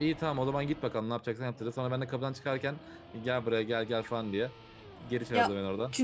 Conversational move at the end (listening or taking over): taking over